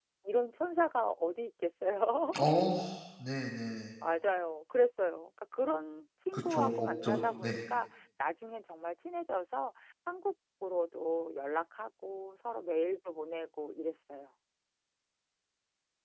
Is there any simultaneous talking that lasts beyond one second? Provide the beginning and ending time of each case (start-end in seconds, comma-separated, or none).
6.3-7.5